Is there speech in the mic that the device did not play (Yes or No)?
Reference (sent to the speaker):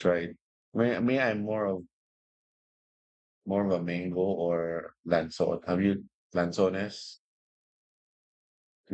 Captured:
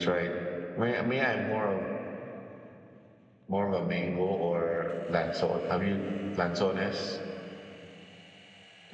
No